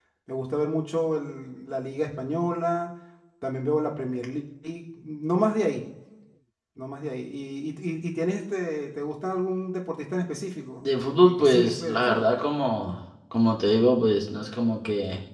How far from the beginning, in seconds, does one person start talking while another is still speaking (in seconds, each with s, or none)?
10.8 s